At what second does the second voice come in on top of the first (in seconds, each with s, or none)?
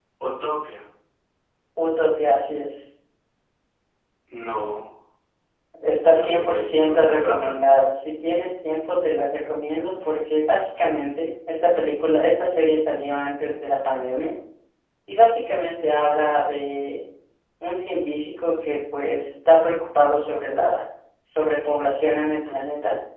6.1 s